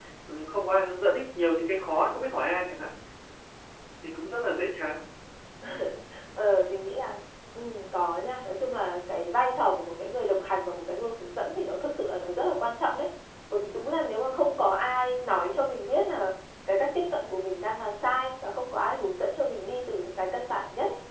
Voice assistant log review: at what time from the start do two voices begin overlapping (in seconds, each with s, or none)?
none